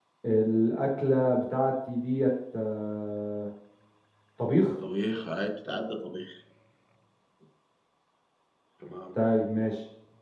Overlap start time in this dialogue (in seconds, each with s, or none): none